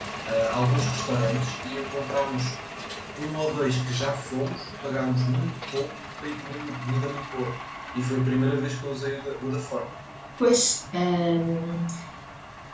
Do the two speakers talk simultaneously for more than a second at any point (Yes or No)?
No